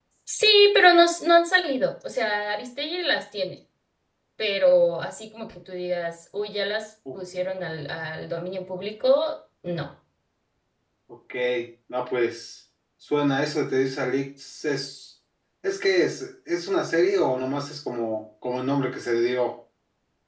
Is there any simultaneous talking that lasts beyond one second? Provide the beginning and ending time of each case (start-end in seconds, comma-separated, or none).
none